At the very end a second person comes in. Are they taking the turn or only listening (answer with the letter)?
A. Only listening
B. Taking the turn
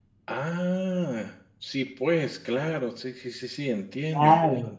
B